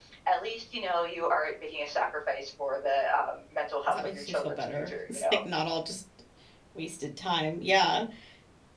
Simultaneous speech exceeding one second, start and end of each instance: 3.9-5.4

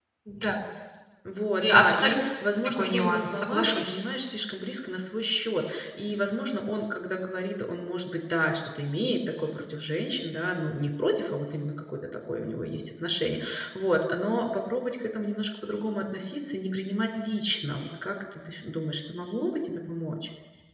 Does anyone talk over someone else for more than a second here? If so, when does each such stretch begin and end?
2.6-4.0

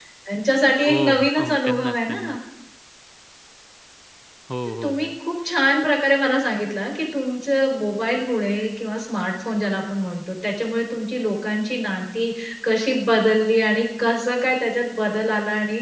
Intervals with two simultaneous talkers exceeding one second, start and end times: 0.9-2.4

